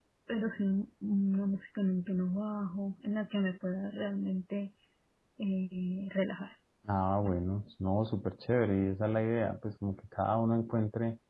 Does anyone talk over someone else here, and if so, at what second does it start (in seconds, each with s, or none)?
none